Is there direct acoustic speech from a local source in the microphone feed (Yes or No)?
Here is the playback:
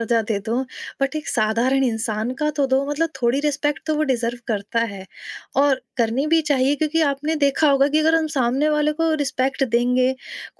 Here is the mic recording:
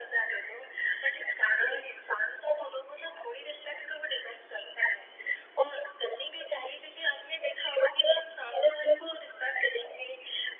No